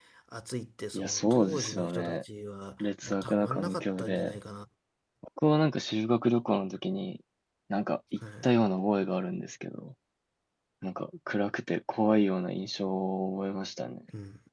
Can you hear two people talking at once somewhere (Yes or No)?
Yes